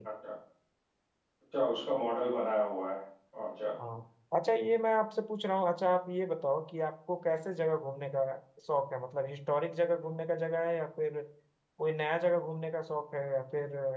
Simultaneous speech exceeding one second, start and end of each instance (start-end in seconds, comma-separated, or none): none